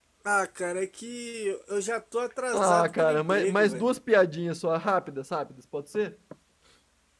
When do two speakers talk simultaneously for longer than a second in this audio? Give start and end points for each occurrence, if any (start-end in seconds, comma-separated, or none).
2.5-3.8